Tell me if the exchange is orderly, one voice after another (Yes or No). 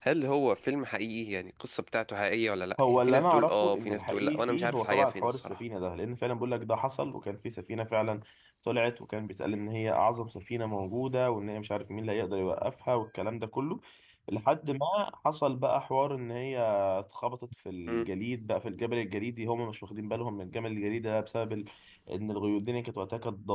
No